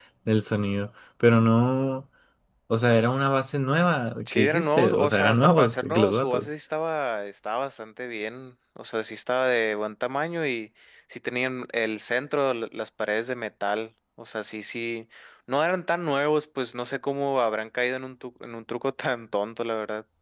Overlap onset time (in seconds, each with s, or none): 4.3 s